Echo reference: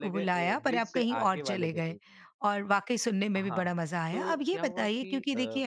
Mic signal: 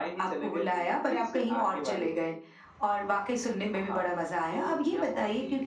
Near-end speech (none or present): none